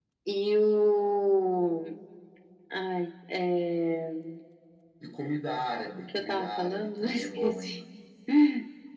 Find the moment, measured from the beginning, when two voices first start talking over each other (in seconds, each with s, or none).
6.1 s